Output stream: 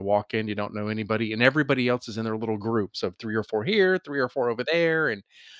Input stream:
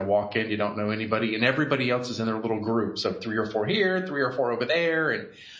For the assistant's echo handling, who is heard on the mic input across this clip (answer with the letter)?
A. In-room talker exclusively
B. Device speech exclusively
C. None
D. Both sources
B